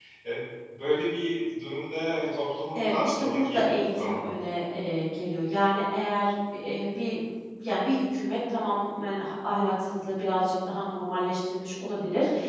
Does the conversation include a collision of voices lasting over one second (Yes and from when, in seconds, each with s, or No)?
Yes, from 2.7 s